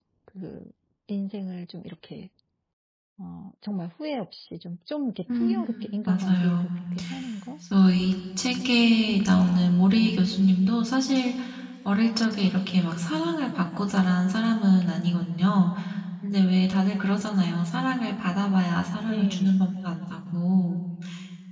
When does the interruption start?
5.3 s

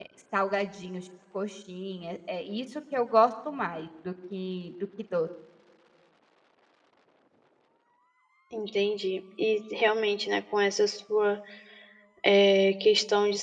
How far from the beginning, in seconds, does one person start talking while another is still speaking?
none

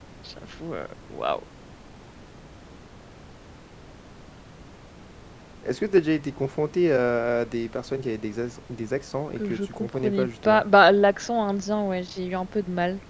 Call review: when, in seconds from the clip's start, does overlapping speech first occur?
9.4 s

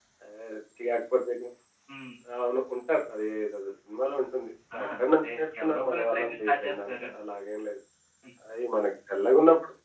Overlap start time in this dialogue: 4.7 s

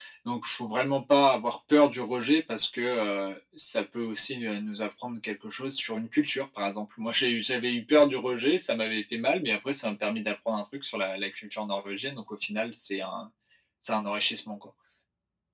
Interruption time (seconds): none

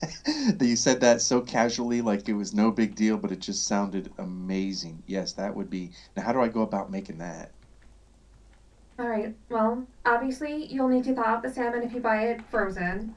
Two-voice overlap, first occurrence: none

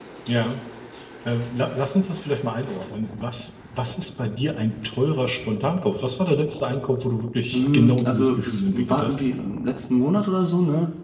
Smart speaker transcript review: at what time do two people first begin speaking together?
7.5 s

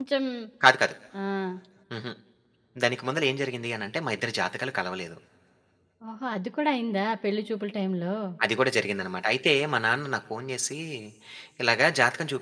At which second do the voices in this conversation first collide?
none

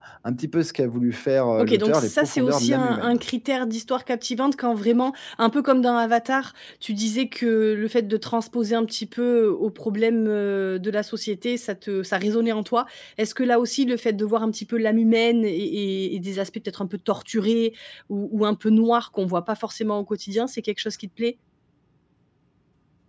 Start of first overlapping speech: 1.6 s

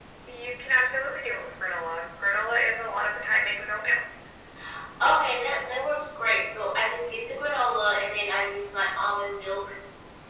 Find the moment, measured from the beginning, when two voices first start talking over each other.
none

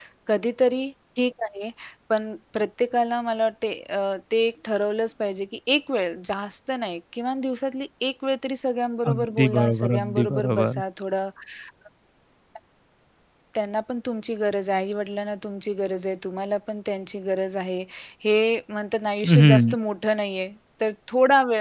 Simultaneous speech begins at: 9.1 s

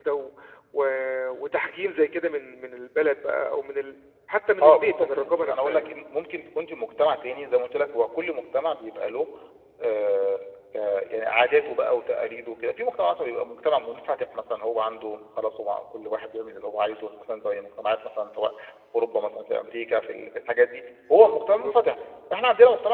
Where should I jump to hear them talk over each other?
4.6 s

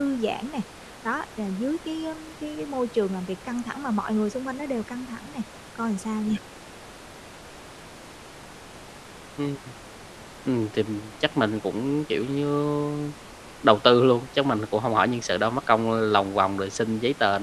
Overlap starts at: none

